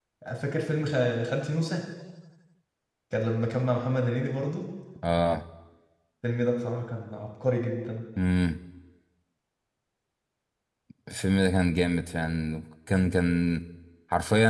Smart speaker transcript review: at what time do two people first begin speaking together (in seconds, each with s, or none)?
none